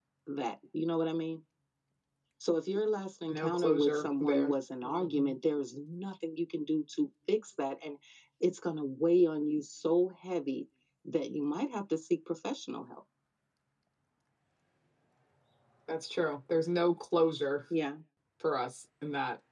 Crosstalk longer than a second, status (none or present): present